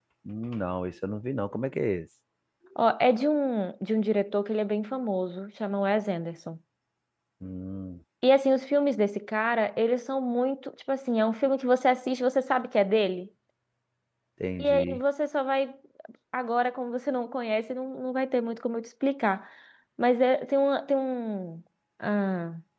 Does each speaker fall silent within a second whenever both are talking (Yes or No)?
Yes